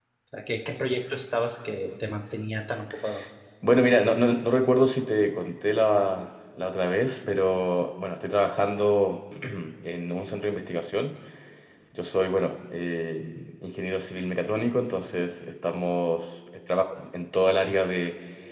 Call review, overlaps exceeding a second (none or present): none